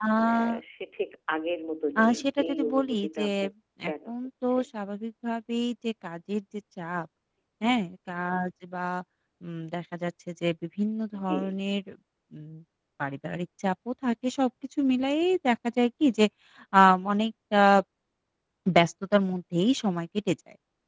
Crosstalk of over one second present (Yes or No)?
Yes